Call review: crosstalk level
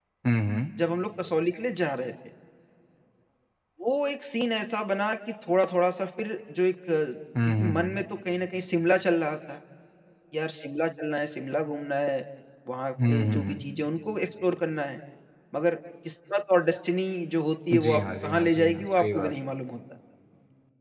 present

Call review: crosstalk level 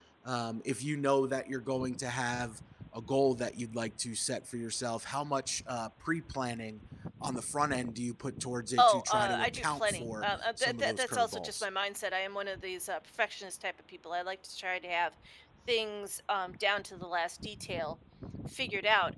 present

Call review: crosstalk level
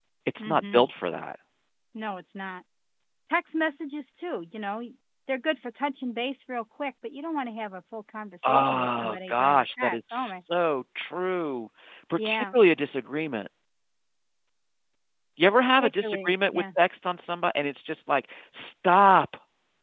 present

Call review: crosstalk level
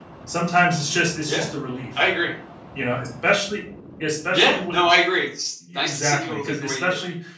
present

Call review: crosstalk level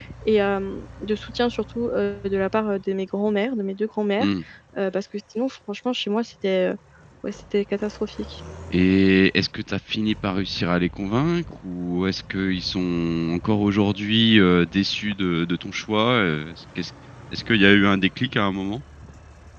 none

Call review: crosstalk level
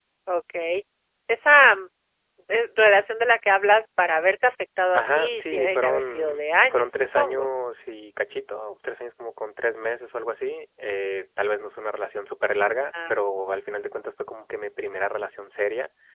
present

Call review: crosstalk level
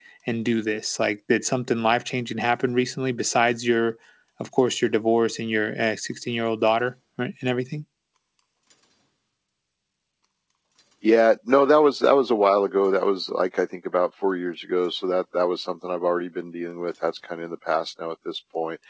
none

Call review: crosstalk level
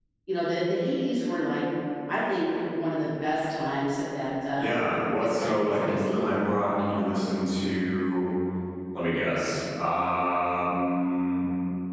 present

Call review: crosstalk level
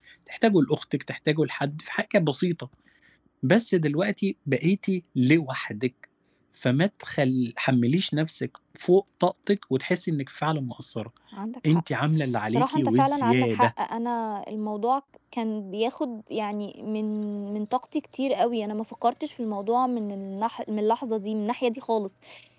present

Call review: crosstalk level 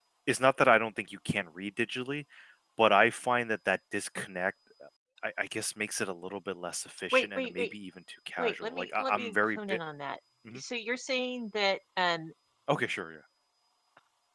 present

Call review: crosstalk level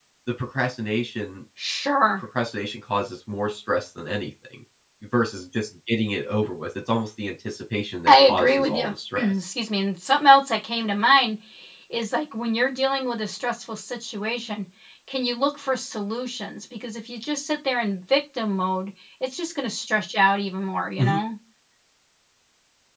present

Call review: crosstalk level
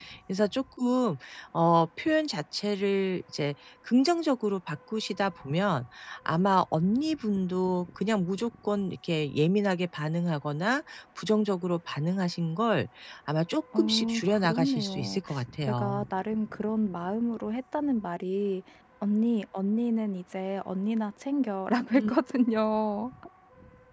present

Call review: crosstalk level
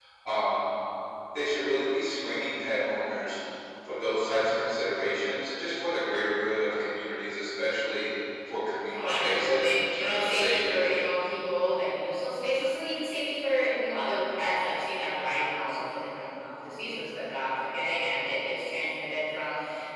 present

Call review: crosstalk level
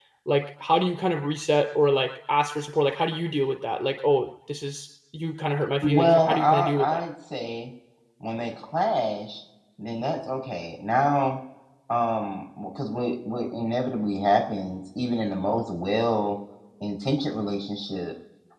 present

